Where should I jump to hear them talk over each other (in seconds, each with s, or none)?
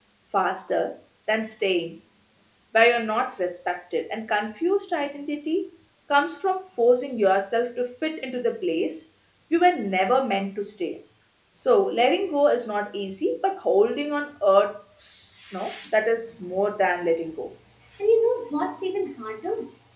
none